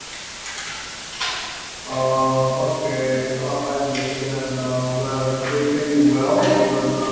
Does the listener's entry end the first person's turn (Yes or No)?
Yes